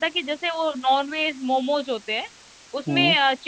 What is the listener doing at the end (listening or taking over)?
listening